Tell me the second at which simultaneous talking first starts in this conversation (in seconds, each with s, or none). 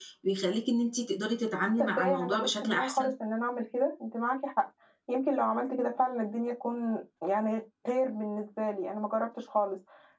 1.8 s